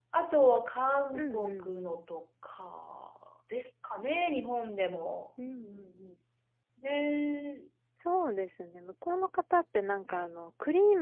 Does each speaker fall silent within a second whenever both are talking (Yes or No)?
Yes